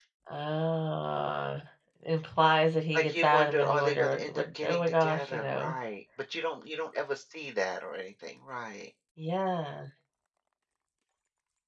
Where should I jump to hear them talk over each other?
2.9 s

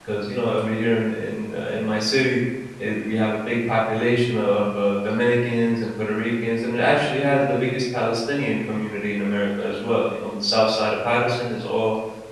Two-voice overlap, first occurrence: none

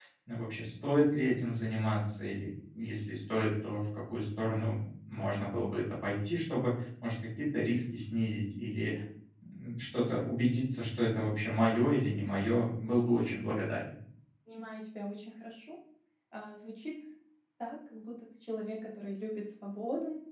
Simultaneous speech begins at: none

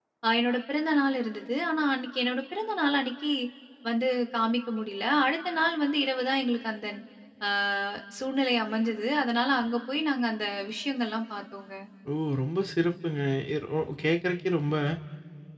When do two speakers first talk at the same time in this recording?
none

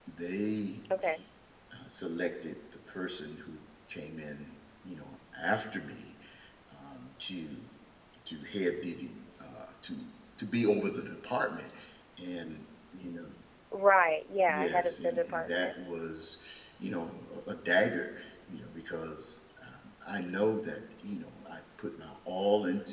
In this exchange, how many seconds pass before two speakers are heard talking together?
14.5 s

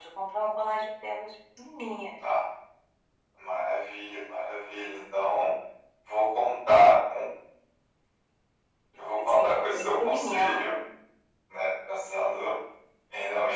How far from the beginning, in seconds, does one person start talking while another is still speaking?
9.0 s

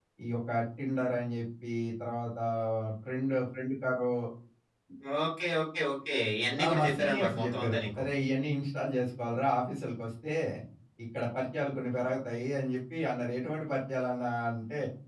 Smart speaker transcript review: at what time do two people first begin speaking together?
6.6 s

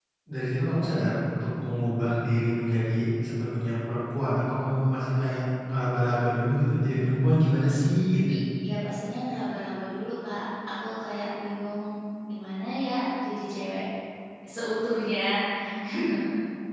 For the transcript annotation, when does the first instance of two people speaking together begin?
none

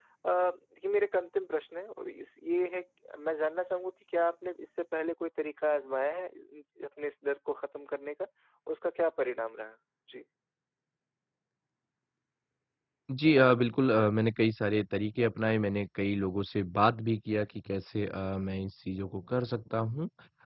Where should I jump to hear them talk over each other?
none

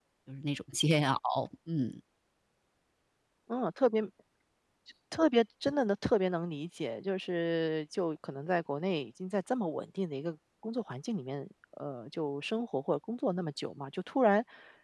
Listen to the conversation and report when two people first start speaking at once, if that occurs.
none

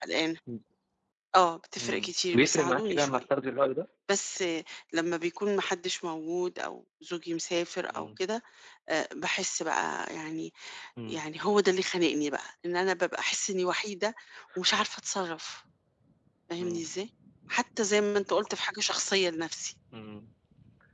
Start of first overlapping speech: 1.8 s

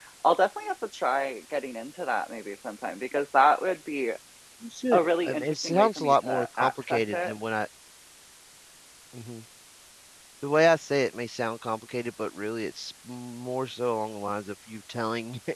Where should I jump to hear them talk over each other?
4.9 s

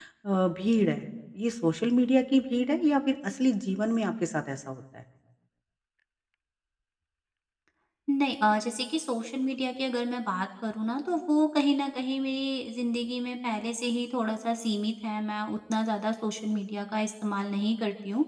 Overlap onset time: none

